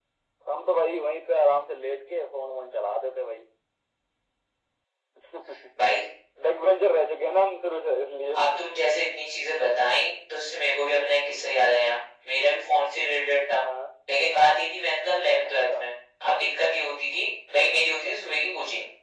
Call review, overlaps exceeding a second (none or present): none